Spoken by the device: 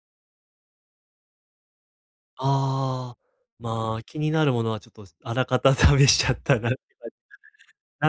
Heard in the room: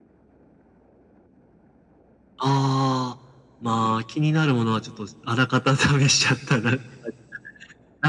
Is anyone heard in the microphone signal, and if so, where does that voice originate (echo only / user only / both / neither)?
echo only